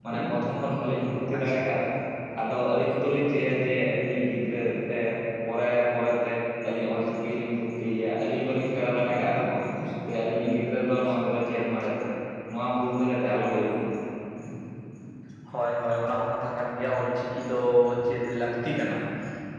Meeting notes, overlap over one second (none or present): none